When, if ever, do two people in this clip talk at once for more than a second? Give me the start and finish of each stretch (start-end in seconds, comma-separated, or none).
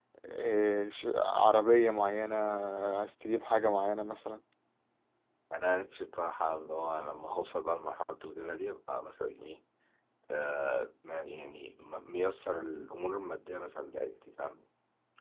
none